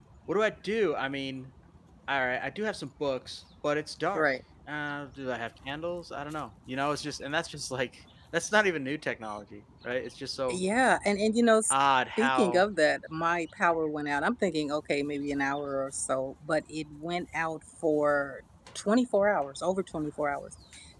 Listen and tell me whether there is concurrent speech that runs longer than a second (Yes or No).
No